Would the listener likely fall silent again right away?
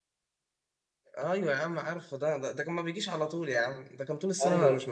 No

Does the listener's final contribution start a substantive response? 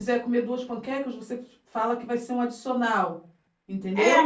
Yes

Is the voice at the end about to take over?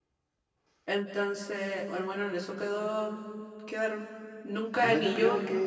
Yes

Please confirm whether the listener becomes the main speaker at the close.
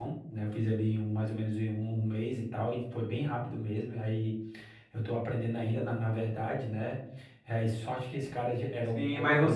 Yes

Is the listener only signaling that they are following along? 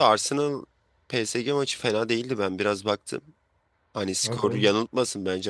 Yes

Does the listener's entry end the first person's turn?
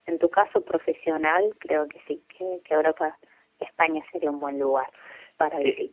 Yes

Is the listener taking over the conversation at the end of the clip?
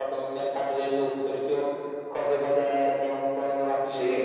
Yes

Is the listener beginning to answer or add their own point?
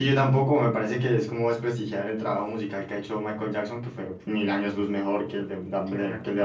Yes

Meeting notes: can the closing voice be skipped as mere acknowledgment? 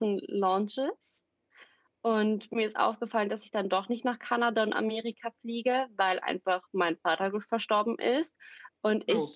Yes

